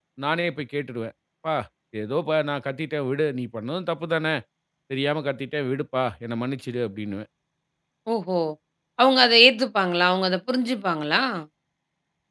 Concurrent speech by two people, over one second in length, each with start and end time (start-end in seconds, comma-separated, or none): none